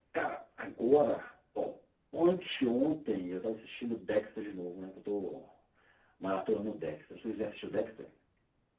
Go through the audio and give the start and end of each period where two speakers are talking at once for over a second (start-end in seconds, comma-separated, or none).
none